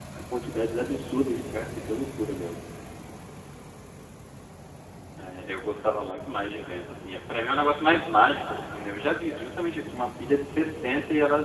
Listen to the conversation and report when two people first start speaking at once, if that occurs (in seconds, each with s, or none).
none